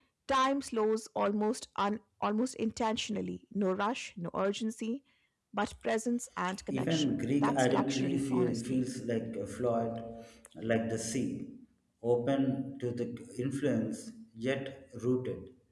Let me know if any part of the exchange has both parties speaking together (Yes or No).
Yes